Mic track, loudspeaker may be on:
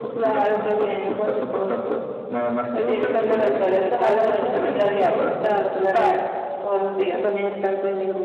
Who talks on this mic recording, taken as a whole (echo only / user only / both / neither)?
both